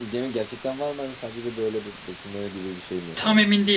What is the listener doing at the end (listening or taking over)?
taking over